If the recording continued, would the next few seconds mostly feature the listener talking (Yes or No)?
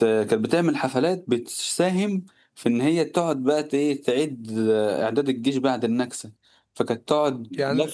No